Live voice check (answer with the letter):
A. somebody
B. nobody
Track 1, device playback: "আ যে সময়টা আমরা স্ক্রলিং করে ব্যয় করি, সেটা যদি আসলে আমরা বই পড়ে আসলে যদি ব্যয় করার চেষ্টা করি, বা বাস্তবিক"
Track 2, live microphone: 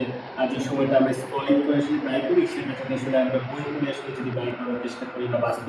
B